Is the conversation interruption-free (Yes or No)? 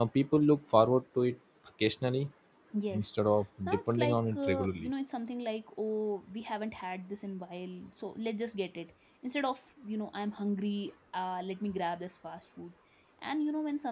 No